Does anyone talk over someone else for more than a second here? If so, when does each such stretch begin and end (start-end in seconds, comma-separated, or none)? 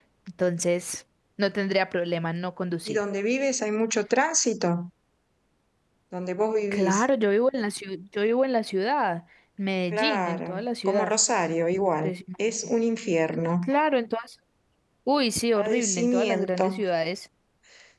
9.9-11.1, 15.6-16.8